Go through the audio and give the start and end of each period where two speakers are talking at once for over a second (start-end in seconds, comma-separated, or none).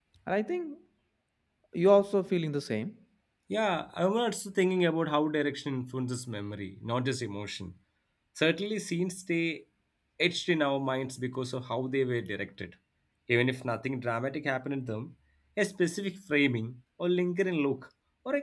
none